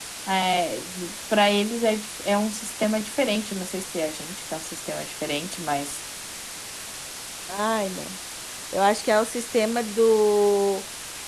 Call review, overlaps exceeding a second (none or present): none